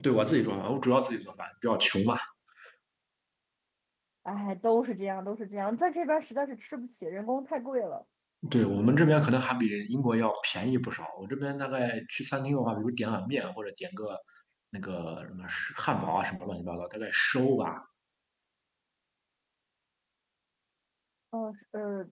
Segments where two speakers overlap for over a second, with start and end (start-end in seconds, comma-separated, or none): none